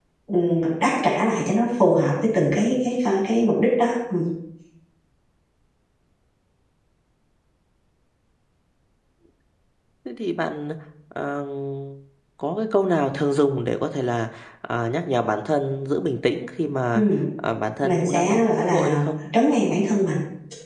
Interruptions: present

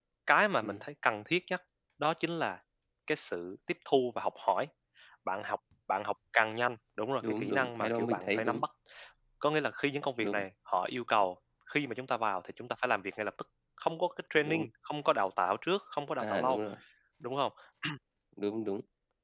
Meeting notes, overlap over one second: present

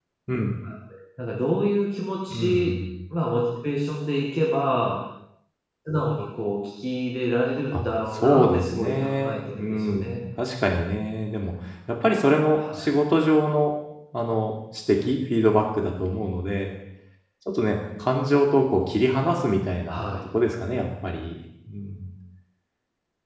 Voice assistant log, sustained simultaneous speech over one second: present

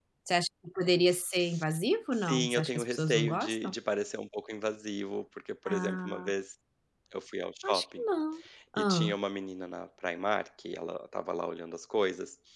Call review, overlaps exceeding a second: present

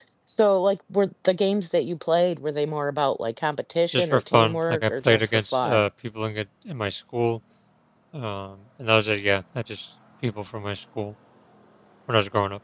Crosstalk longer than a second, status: present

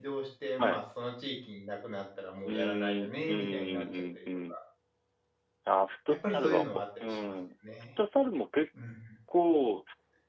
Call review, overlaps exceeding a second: present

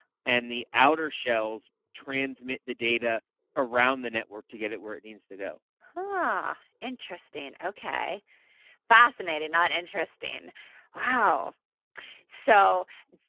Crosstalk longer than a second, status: none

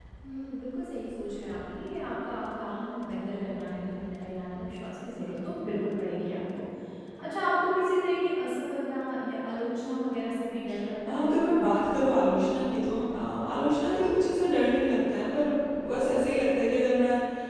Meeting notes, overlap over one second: none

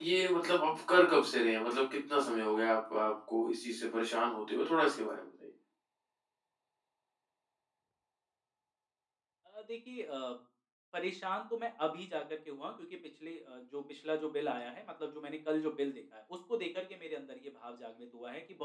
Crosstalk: none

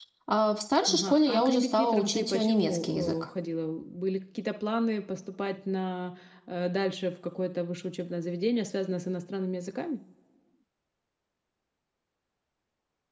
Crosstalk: present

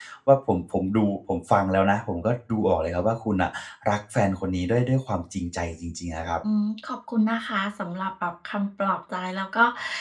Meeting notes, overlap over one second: none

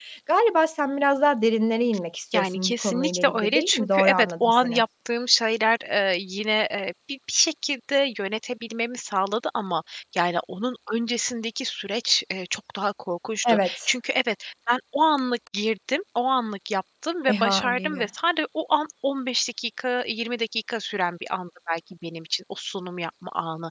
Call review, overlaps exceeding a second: present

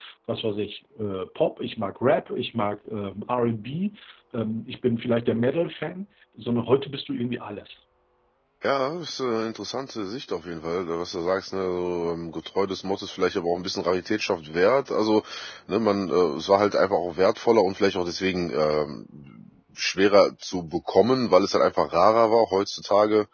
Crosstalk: none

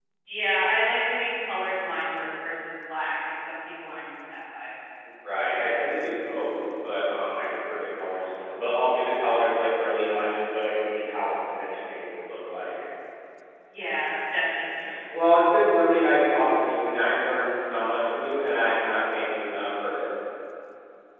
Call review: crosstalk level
none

